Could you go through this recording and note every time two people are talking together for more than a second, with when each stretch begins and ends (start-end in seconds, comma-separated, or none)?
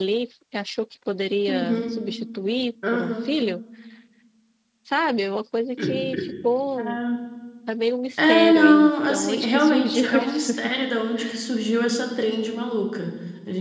8.2-10.5